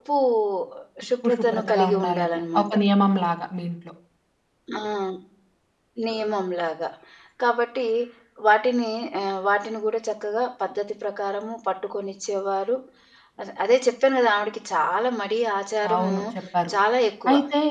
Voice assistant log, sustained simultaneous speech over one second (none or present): present